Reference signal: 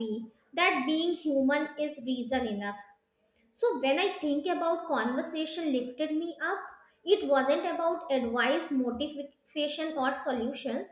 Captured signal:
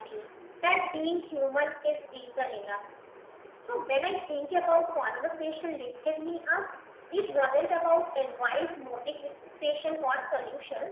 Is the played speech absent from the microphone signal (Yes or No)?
No